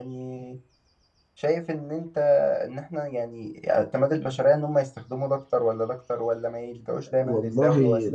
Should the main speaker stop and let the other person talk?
Yes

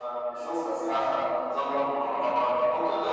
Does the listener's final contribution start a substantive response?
No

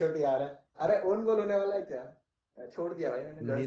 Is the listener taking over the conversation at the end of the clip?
No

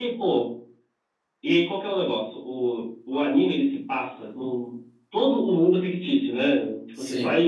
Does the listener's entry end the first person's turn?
No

